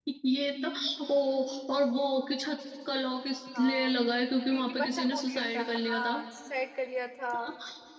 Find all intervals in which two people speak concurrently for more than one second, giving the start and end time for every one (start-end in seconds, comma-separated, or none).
4.5-6.2